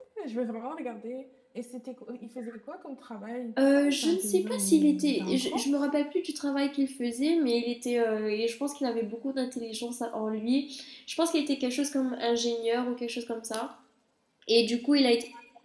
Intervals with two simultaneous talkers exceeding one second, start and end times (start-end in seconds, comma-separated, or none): 3.8-5.6